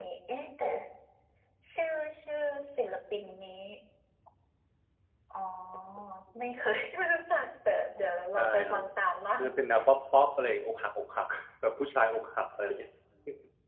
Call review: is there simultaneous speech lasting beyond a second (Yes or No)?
No